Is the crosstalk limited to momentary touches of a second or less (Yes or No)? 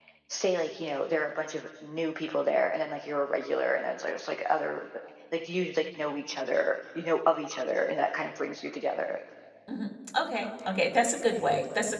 Yes